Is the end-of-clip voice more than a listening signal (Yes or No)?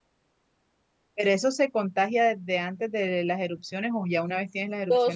Yes